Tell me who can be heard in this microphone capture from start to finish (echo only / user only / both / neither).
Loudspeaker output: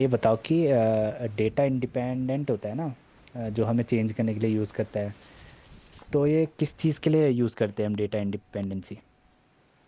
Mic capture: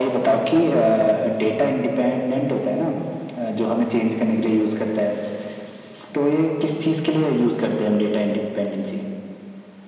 echo only